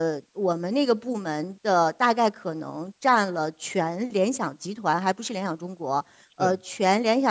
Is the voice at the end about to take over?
No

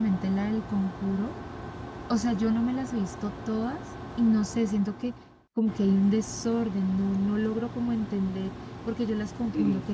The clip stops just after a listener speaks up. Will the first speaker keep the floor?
Yes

